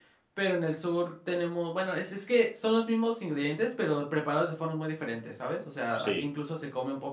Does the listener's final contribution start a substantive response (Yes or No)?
No